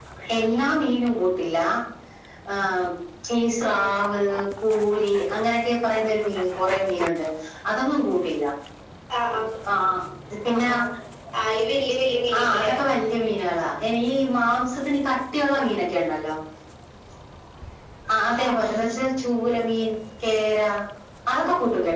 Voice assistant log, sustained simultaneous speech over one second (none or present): none